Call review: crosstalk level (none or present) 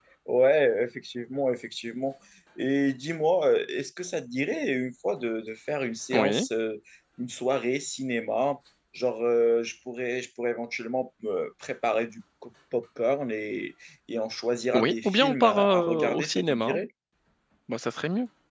present